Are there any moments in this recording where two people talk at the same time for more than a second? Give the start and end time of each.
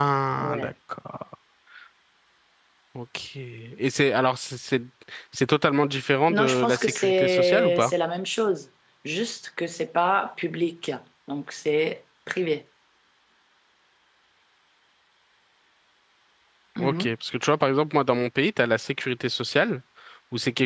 6.3-7.9

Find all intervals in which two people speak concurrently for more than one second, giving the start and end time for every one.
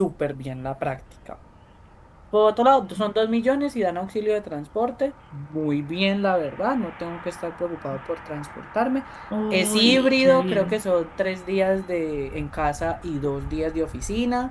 9.5-10.8

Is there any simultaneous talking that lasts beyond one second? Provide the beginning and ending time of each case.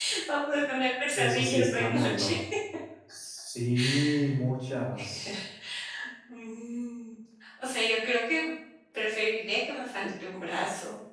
1.1-2.4

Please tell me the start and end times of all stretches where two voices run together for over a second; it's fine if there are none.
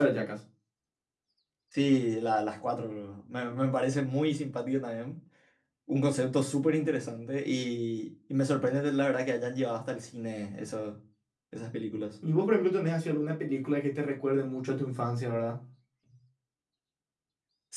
none

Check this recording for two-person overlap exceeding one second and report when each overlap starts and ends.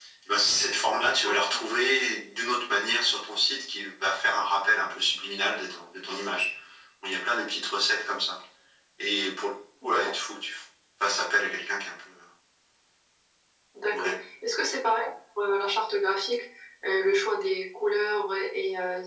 none

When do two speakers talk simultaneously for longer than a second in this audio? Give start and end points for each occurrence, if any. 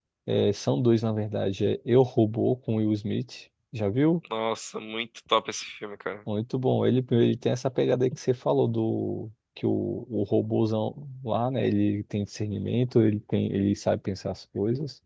none

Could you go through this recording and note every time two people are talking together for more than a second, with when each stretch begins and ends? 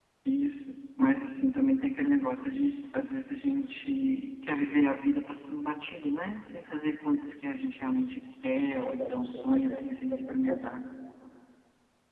8.8-10.7

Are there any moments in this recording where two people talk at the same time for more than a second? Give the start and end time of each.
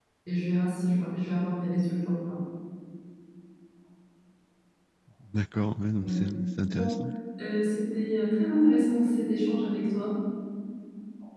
none

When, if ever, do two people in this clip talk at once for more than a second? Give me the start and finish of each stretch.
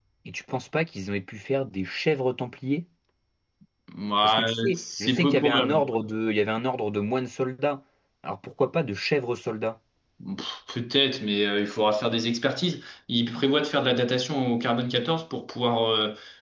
4.2-5.9

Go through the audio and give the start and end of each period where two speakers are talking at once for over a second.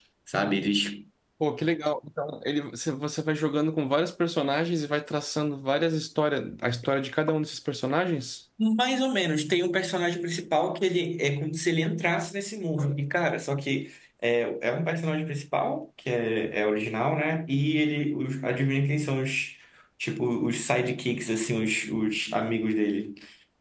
none

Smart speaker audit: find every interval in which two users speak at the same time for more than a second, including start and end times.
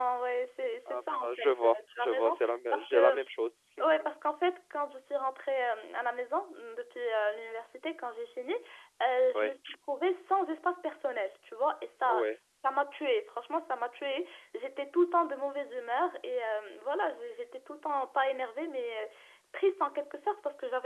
0.9-3.1

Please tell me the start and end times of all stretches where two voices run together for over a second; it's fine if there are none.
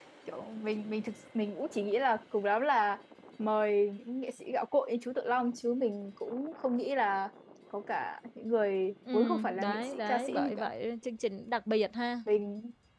9.1-10.7

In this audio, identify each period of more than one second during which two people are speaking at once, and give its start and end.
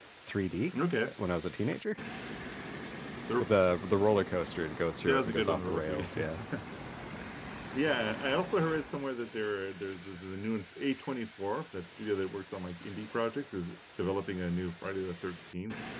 5.1-6.3

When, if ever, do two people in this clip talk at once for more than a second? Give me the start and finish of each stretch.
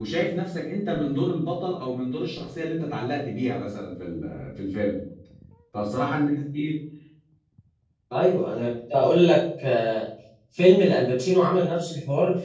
none

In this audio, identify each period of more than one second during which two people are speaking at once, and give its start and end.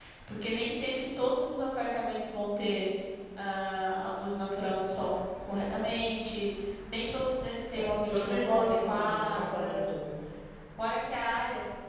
7.7-9.8

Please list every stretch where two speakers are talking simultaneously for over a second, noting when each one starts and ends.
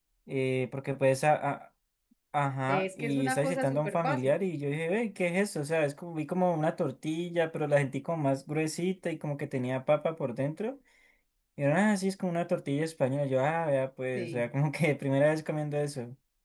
2.7-4.3

